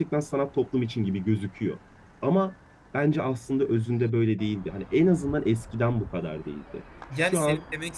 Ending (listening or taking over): taking over